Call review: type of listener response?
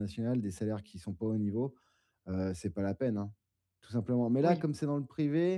listening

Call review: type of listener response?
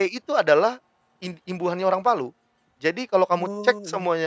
listening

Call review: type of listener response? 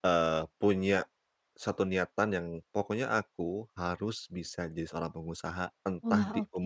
listening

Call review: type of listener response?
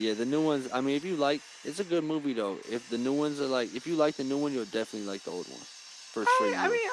taking over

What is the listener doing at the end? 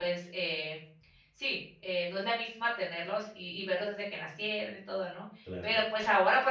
listening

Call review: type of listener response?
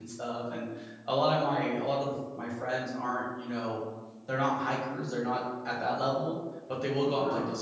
listening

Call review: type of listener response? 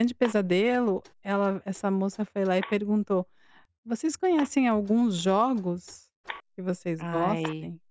listening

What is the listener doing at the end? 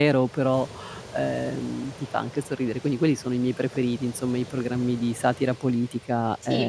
taking over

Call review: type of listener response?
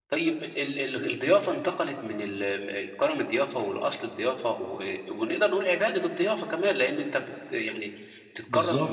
listening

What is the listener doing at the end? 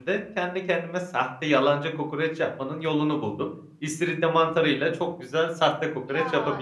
taking over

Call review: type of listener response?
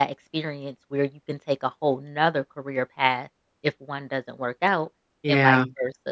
listening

